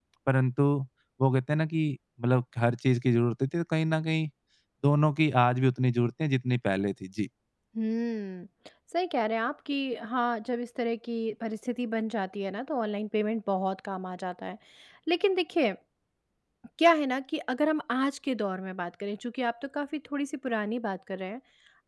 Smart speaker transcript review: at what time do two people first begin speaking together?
none

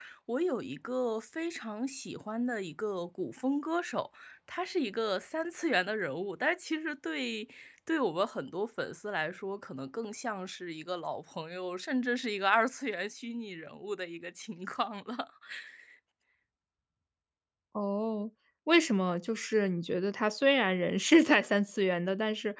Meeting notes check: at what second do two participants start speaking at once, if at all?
none

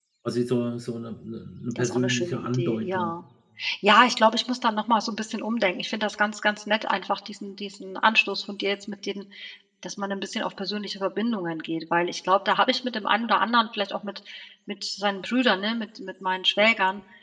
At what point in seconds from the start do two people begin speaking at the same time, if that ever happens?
2 s

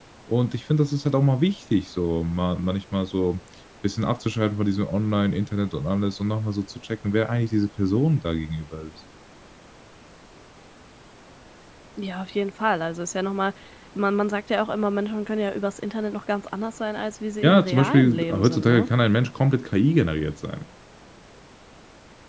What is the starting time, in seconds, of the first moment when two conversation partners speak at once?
17 s

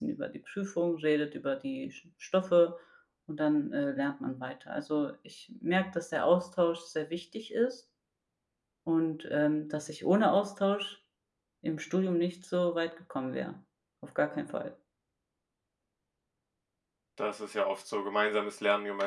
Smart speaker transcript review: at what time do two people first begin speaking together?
none

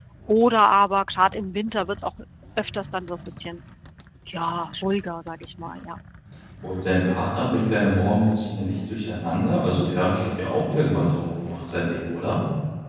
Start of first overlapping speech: none

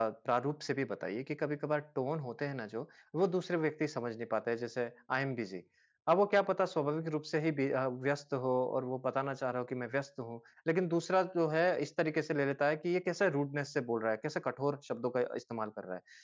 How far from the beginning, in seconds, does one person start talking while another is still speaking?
none

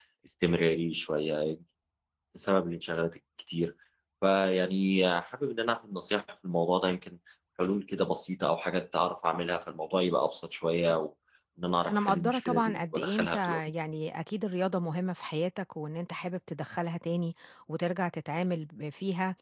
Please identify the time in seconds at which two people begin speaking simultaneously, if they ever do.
12 s

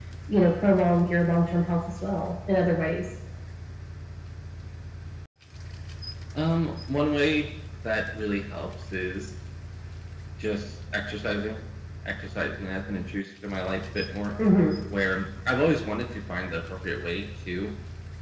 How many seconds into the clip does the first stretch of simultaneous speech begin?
none

